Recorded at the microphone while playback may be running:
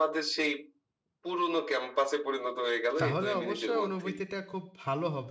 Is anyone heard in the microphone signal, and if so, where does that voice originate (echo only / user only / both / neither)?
both